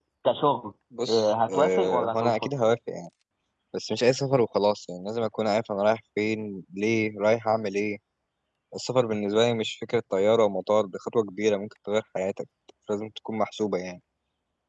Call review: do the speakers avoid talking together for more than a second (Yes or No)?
No